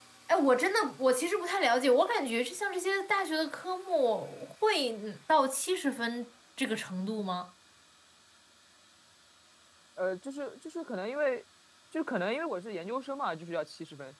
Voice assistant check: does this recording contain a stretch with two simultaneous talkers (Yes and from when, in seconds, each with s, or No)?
No